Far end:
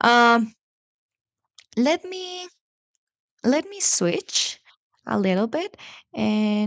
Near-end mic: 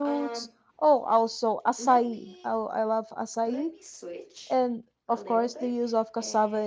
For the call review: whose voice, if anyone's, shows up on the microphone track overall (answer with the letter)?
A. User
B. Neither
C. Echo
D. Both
D